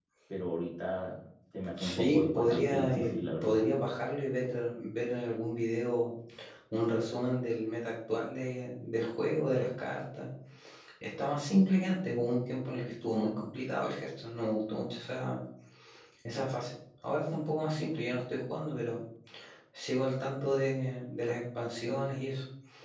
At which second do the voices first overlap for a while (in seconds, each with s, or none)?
1.8 s